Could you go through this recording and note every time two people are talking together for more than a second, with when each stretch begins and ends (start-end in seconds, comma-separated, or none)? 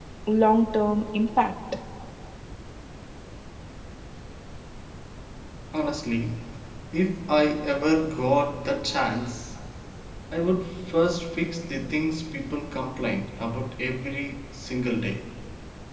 none